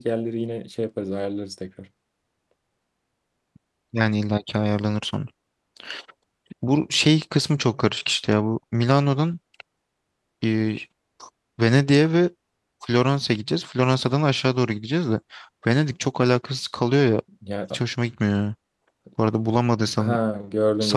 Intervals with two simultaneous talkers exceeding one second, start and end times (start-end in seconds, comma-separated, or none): none